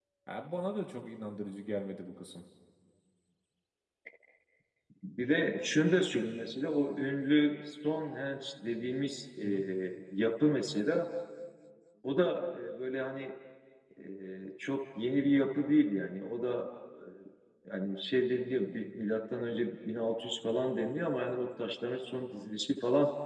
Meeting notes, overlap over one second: none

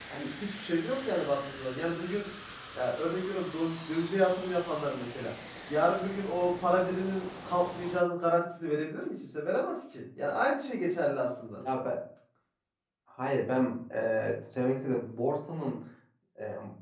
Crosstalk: none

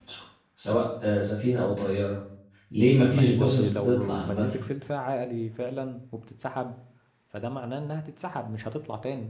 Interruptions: present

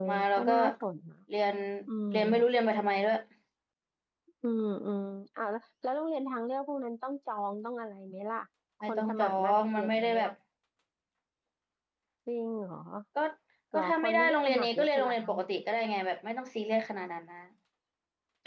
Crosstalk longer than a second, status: present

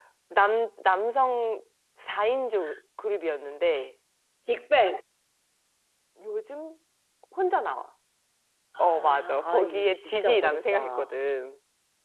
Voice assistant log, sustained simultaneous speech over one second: present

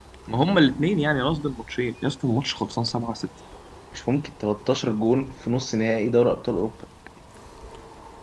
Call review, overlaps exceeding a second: none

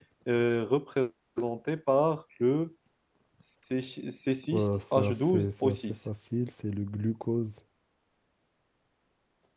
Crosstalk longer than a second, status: present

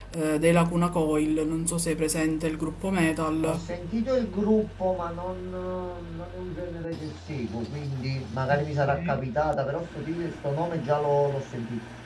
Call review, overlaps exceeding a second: none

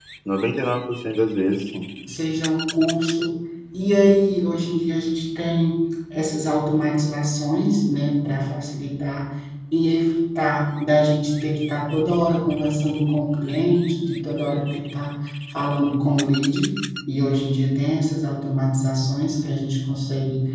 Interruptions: none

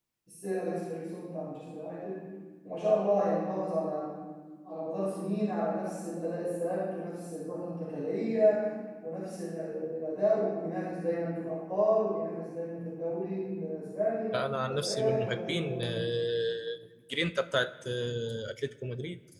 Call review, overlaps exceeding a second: present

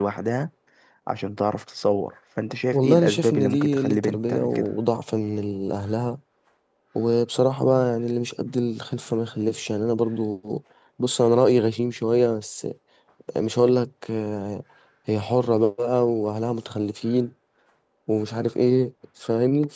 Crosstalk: present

